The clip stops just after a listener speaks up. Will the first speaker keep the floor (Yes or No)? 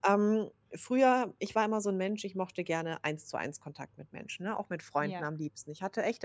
Yes